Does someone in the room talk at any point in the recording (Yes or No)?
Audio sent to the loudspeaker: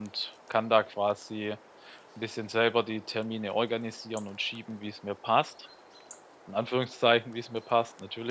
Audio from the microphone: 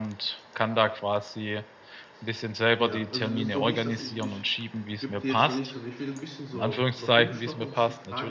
Yes